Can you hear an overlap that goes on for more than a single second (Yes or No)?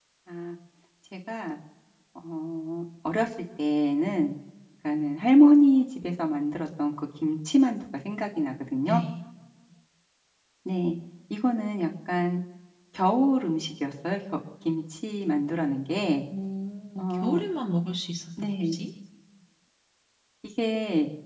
No